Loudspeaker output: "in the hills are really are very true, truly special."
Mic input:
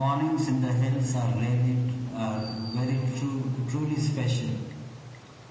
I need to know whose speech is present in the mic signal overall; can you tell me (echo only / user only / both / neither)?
echo only